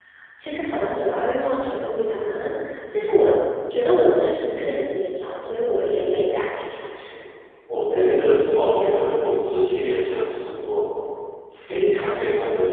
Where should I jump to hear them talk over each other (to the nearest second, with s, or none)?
none